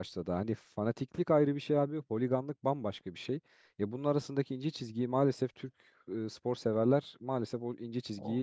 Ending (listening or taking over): taking over